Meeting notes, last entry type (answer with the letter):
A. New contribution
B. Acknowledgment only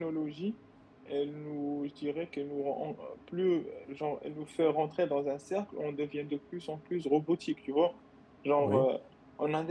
B